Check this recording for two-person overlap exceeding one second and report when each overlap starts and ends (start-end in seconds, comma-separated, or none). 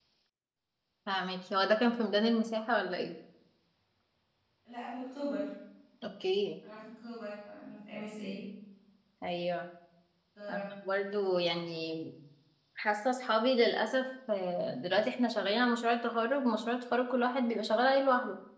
none